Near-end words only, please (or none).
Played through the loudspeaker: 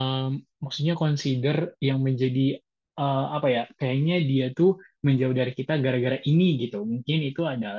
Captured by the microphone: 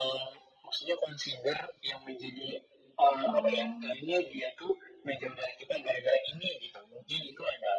Oh,